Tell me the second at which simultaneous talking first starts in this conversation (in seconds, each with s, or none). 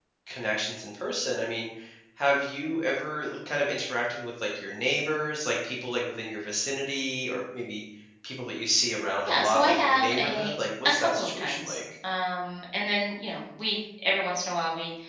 9.2 s